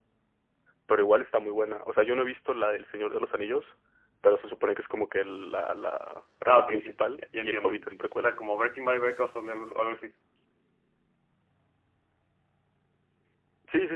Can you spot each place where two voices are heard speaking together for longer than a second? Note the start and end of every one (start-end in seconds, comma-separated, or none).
6.5-8.4